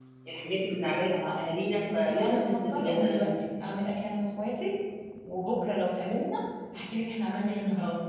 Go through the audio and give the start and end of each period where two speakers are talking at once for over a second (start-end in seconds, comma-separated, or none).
1.9-3.3